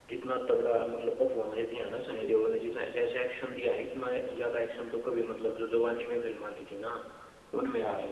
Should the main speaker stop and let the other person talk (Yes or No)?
No